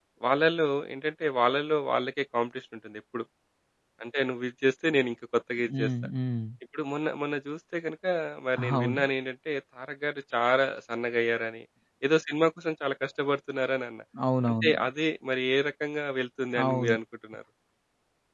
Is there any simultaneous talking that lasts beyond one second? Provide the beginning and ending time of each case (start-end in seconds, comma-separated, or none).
none